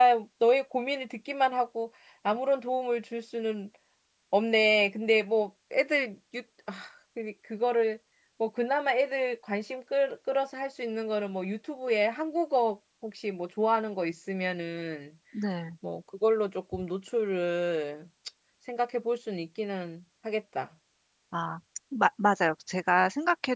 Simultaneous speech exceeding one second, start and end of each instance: none

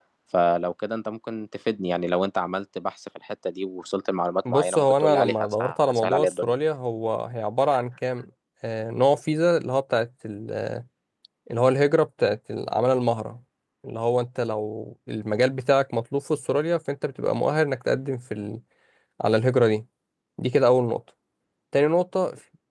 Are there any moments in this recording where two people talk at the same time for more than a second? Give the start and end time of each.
4.5-6.5

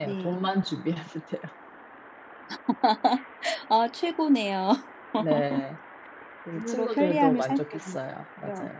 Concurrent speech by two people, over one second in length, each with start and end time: 6.5-8.0

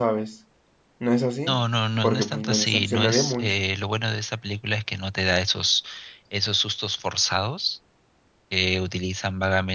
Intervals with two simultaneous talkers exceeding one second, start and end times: 2.0-3.6

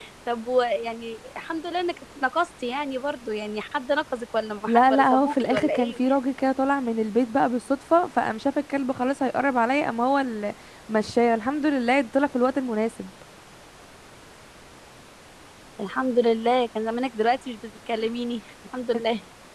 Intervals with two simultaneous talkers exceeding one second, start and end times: 4.7-6.1

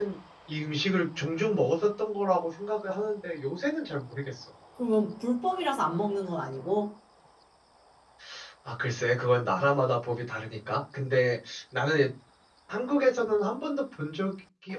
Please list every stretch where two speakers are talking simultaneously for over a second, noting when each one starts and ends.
none

